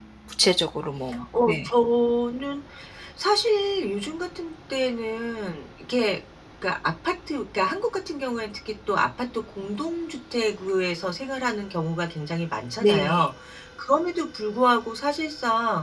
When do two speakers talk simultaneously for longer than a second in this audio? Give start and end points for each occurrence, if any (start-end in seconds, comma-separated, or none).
none